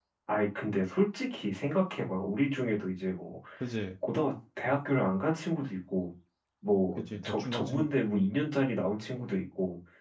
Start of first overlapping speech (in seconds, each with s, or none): 7.0 s